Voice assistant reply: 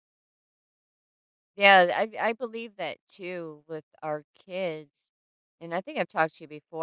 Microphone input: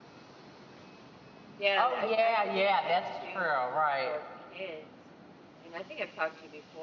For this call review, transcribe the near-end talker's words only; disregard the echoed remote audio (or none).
Oh, yeah, yeah, that's true, right.